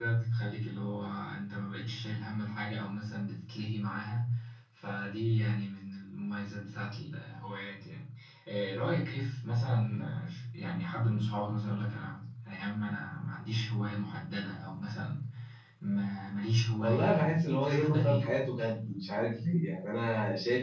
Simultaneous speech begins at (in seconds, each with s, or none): 16.8 s